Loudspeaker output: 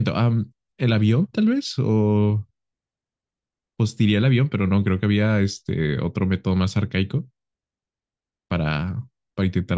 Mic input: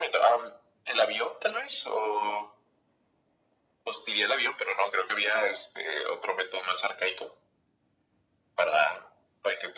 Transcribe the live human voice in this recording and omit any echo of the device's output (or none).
none